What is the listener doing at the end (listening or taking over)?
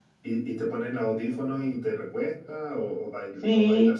taking over